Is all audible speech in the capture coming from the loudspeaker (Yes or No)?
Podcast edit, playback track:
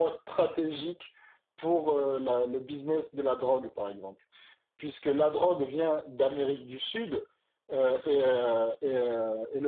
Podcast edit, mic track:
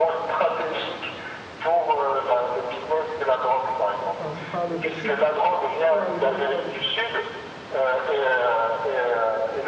No